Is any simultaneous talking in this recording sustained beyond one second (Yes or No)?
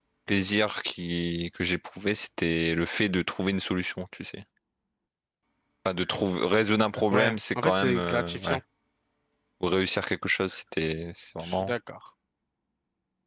Yes